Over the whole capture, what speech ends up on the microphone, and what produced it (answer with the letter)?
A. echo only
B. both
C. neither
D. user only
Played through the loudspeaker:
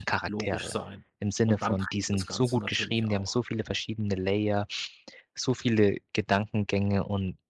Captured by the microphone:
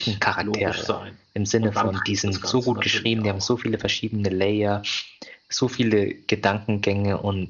A